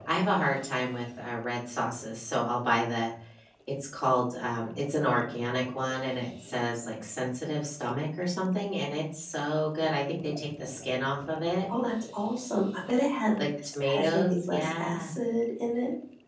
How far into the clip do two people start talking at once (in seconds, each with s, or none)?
13.4 s